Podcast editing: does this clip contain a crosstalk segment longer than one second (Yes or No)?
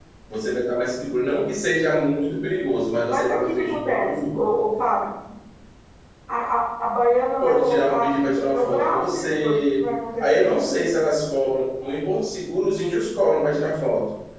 Yes